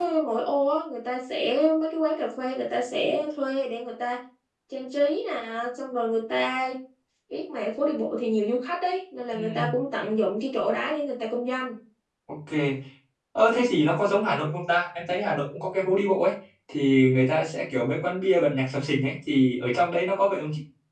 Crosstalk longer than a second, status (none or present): none